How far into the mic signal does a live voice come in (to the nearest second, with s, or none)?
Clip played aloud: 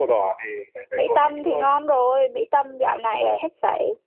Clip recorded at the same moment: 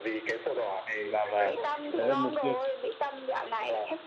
1 s